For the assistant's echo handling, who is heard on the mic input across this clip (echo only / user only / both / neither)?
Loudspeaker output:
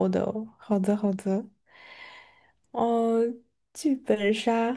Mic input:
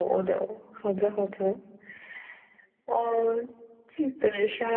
echo only